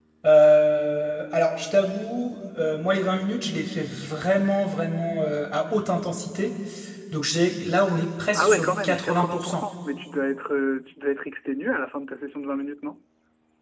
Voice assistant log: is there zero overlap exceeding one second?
No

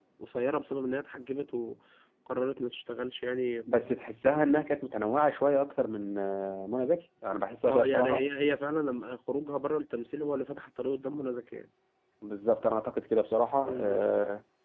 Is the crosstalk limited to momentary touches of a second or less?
Yes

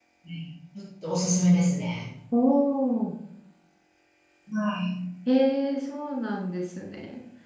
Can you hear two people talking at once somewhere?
No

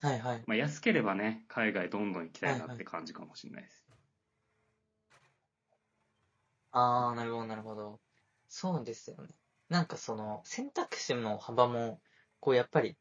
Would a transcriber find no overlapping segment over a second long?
Yes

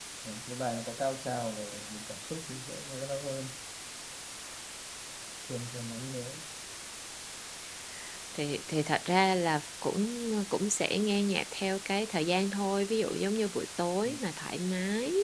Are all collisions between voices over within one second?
Yes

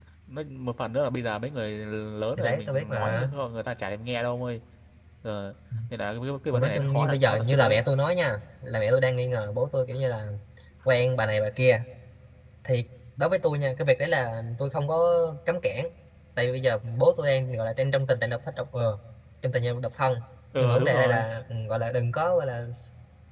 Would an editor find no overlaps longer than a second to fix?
No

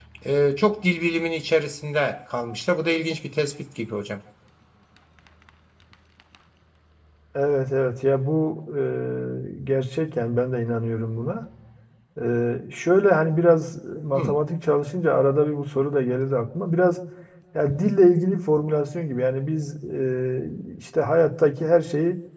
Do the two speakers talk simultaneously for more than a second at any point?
No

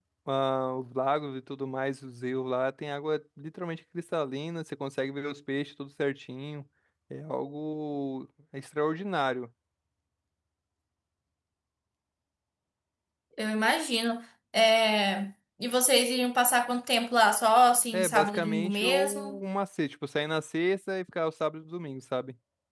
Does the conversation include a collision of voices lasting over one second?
Yes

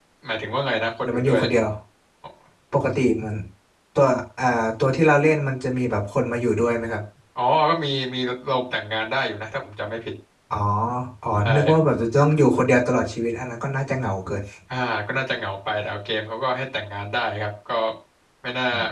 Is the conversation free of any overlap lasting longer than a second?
Yes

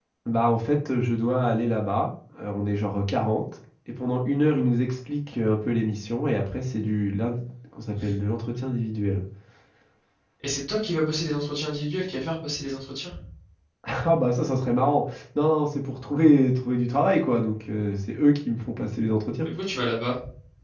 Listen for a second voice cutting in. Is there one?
No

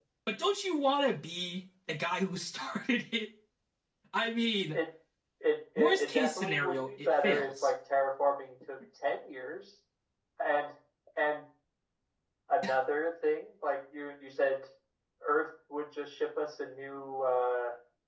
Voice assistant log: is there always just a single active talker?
No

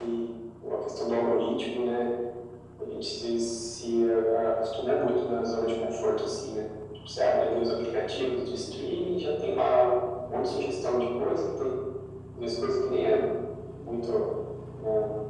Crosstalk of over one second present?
No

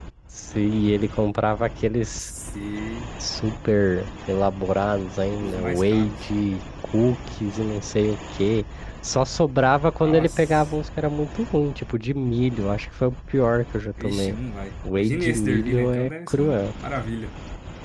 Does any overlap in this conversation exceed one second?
Yes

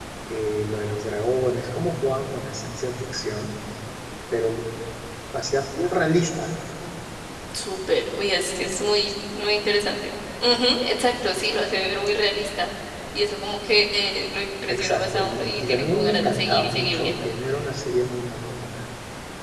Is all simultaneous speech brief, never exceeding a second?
No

